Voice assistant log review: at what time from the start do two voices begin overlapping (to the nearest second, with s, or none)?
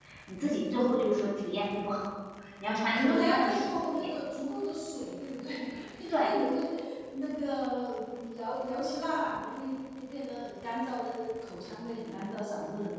3 s